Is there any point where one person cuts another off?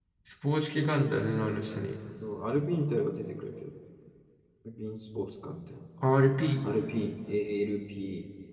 No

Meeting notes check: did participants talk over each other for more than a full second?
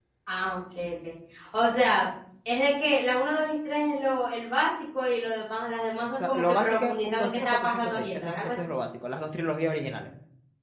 Yes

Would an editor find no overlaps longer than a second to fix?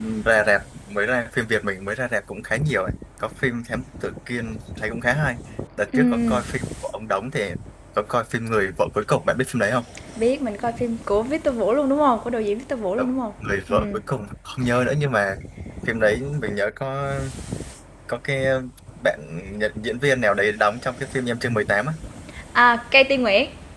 Yes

